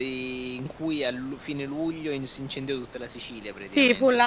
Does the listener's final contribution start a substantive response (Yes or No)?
Yes